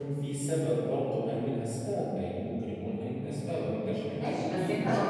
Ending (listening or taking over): taking over